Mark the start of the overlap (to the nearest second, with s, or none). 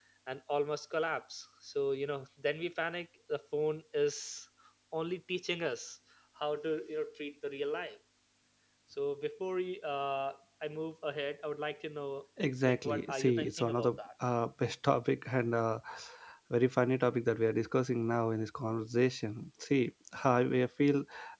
13 s